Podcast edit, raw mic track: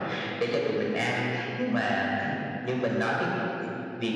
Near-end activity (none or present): none